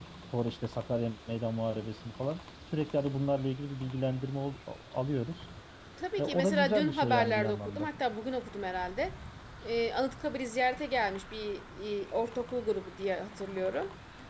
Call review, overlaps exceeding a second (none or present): present